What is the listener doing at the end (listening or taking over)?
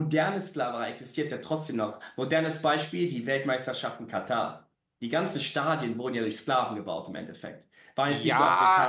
taking over